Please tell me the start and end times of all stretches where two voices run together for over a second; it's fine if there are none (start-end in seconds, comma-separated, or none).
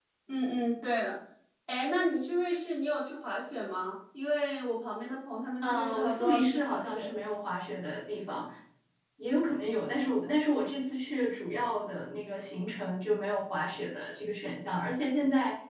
5.6-7.1